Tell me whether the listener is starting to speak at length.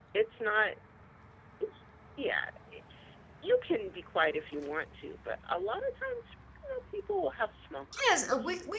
Yes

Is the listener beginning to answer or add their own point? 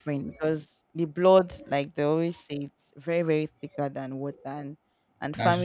No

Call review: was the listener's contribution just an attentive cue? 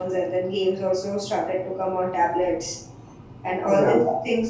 Yes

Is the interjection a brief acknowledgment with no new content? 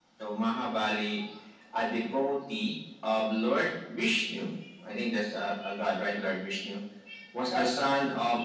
Yes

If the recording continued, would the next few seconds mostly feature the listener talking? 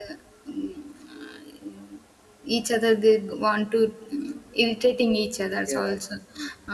No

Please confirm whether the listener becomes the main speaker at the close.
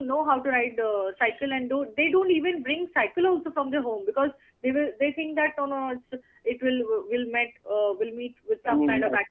No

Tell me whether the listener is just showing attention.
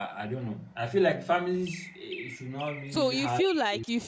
No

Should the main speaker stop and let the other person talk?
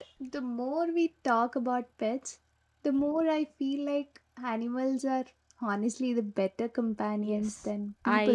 Yes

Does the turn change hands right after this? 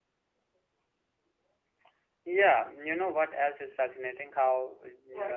No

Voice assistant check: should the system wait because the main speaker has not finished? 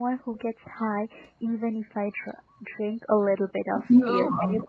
Yes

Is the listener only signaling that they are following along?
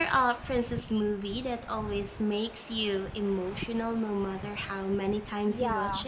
No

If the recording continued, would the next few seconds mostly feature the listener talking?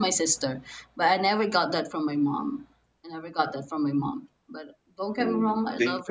Yes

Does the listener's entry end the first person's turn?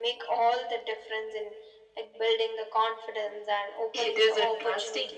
Yes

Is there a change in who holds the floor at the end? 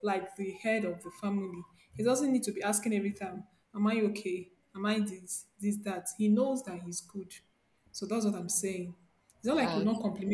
No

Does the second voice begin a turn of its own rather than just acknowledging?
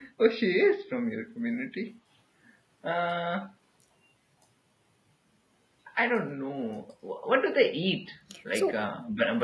No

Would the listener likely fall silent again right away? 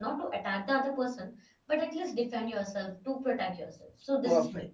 No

